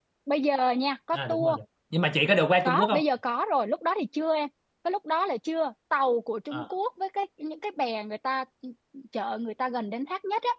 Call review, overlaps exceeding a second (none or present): none